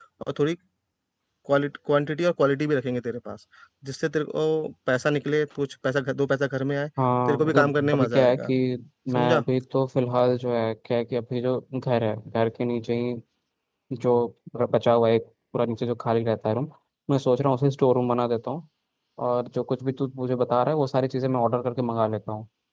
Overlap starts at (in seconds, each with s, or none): 7.3 s